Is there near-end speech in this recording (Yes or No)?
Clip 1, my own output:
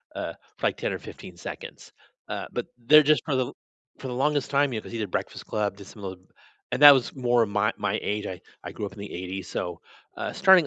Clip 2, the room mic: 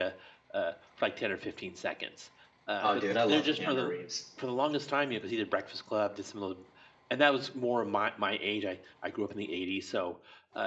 Yes